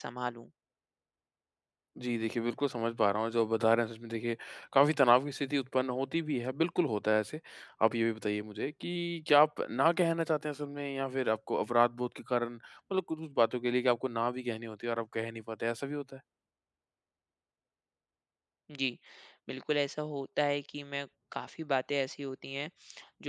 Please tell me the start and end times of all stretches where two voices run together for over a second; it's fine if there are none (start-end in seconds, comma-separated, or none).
none